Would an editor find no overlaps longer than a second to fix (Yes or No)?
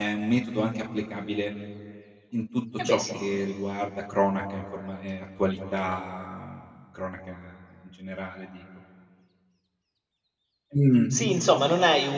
Yes